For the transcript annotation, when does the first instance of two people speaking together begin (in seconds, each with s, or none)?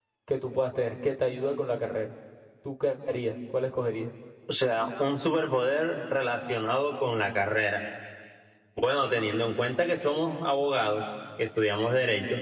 none